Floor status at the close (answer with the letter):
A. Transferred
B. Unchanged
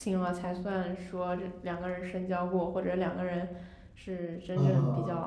A